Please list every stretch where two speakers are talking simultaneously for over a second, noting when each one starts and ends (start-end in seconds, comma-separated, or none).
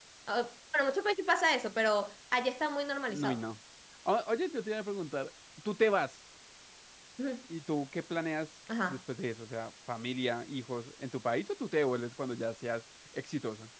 none